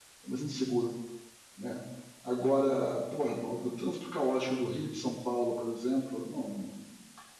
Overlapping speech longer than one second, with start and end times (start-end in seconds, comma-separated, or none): none